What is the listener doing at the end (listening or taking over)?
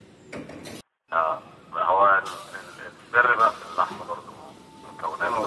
taking over